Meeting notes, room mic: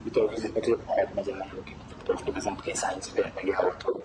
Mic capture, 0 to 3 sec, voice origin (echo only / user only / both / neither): echo only